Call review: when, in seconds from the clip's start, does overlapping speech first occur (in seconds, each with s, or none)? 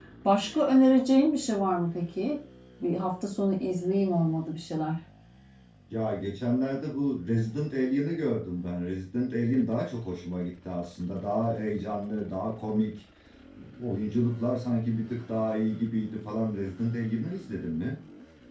none